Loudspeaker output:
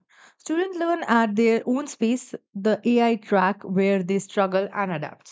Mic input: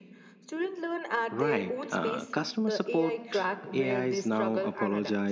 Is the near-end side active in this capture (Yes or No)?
Yes